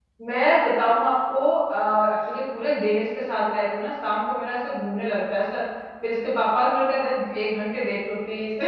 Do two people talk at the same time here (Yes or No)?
No